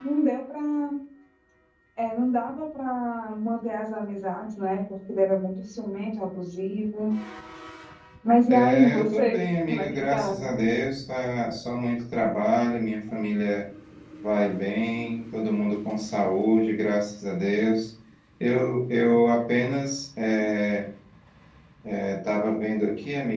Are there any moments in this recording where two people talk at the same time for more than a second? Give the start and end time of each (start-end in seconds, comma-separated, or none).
8.5-10.4